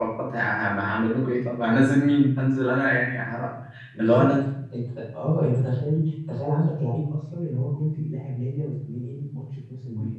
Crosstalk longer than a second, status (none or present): none